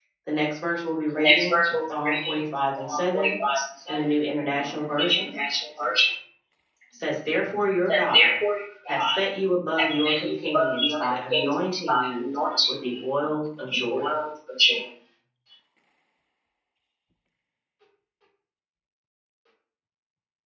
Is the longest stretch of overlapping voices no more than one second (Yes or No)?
No